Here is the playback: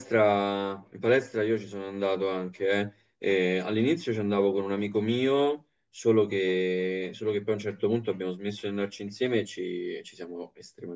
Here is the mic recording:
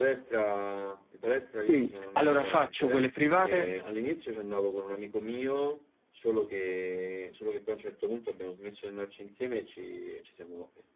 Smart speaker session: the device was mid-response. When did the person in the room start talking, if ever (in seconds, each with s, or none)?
1.5 s